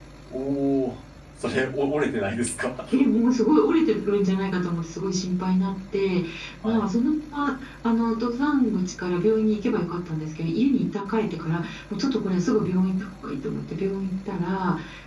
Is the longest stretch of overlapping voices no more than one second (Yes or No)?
Yes